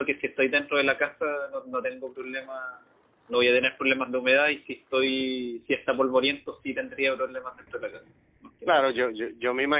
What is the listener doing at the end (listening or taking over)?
taking over